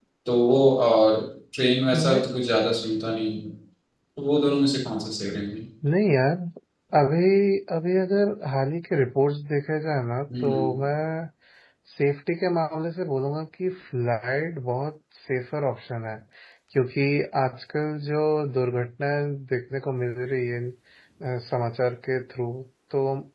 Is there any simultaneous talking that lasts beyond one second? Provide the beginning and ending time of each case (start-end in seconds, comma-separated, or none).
none